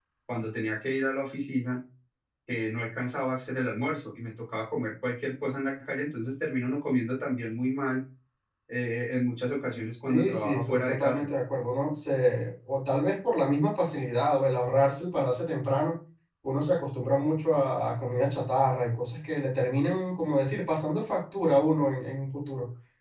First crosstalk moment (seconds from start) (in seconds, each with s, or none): 10.0 s